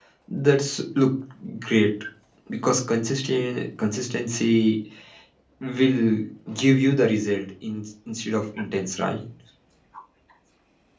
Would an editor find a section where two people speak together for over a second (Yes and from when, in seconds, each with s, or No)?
No